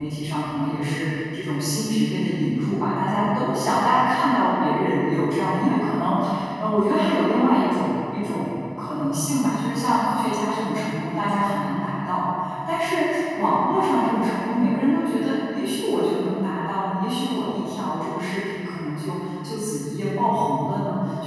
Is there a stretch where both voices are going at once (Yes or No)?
No